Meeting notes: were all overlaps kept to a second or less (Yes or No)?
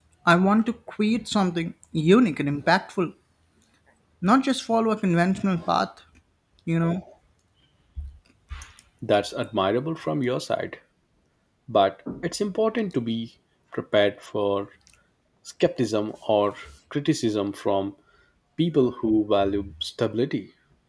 Yes